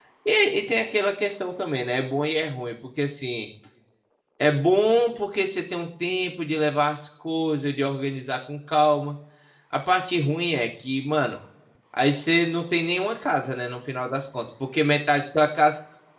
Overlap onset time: none

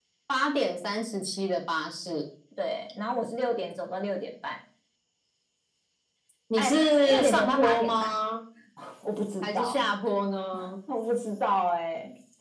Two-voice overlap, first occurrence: 6.6 s

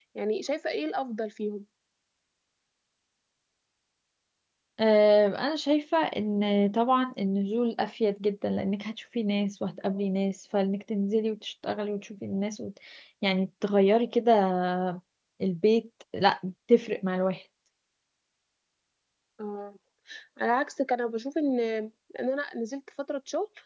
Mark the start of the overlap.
none

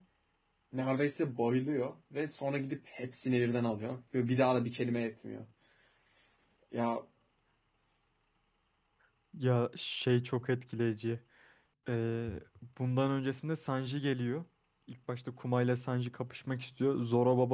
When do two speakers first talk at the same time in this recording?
none

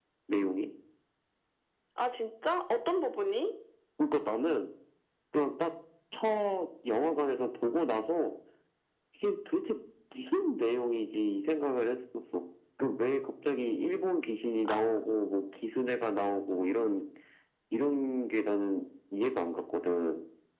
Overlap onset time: none

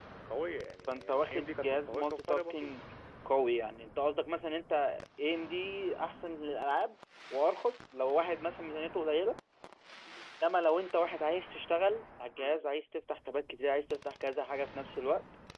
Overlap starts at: 0.9 s

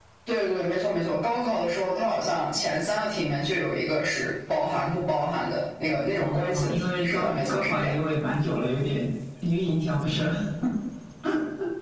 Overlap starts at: 6.2 s

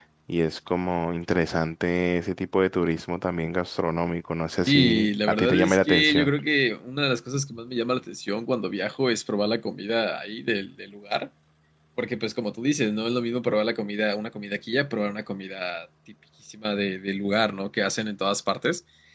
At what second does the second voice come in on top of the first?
4.7 s

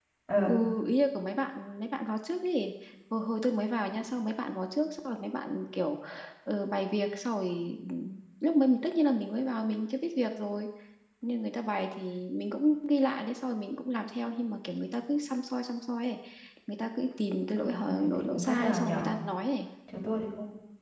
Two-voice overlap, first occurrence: 17.6 s

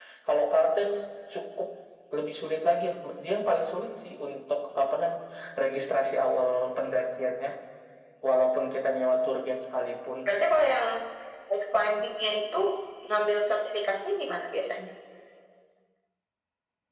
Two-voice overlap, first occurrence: none

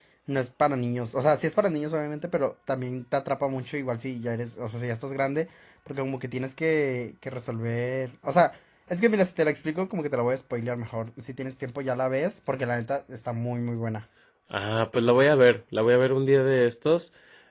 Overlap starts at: none

